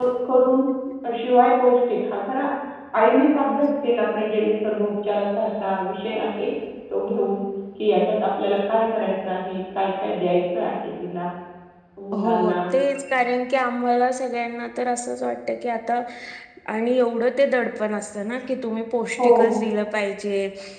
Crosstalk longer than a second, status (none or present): none